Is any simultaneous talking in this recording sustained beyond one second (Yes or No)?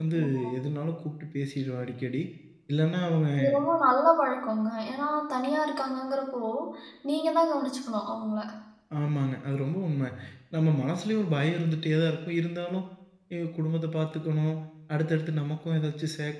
No